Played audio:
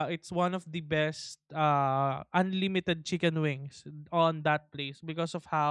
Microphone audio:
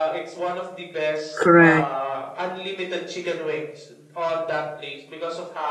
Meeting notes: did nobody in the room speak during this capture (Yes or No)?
No